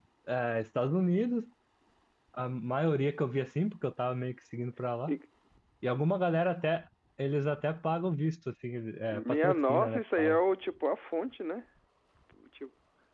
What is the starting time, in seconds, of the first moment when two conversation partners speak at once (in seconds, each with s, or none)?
9.1 s